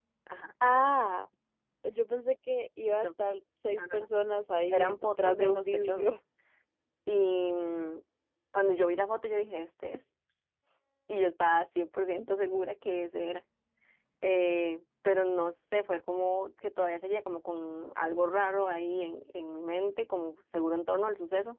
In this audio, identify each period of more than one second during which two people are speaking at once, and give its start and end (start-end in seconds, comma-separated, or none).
4.7-6.2